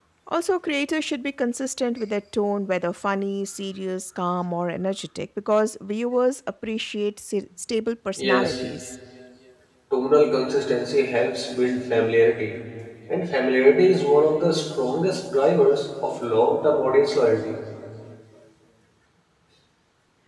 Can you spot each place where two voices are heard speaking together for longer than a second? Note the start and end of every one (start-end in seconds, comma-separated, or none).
none